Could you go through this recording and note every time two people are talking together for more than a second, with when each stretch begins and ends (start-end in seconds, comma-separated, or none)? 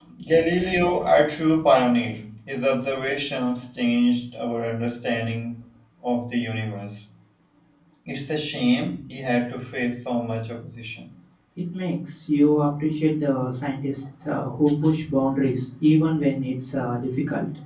none